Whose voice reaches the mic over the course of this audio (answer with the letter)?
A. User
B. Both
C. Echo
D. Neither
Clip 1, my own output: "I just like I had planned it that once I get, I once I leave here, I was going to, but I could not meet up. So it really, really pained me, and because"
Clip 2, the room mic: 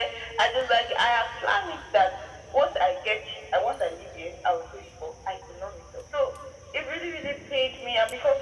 C